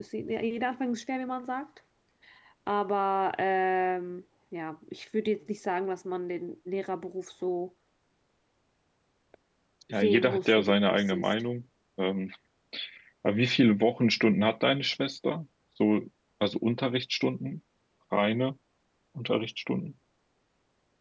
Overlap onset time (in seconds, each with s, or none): 9.9 s